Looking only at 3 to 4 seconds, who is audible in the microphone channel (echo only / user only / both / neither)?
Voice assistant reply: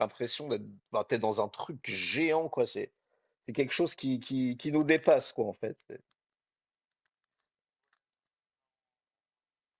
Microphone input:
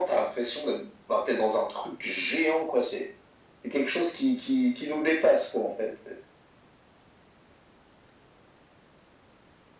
echo only